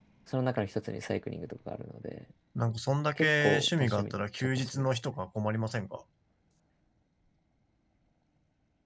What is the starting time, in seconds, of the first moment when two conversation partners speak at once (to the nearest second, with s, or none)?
3 s